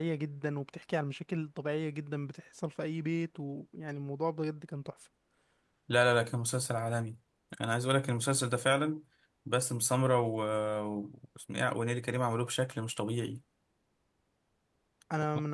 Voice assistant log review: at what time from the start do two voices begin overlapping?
none

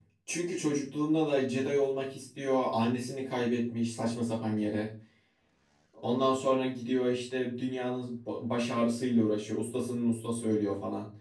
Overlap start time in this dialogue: none

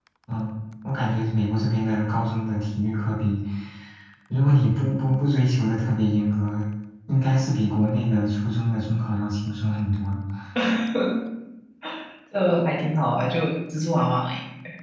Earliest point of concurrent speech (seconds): none

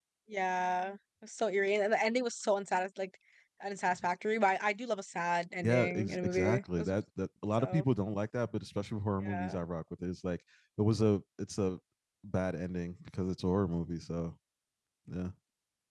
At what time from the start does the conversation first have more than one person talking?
5.6 s

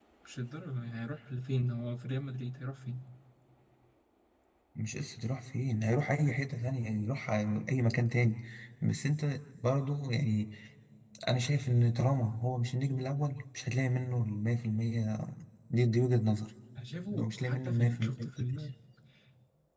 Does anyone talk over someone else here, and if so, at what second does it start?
17.1 s

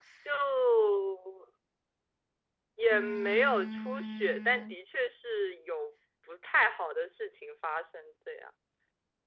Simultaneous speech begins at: 2.9 s

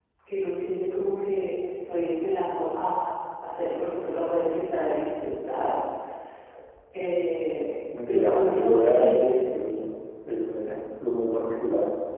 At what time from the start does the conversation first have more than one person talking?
7.9 s

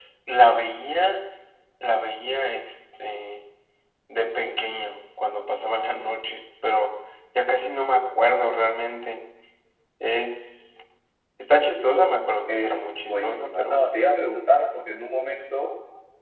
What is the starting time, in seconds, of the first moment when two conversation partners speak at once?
12.5 s

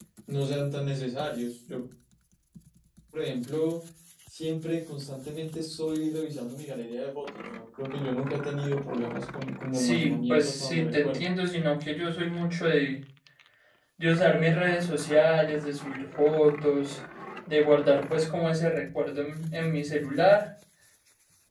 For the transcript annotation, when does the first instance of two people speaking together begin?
9.7 s

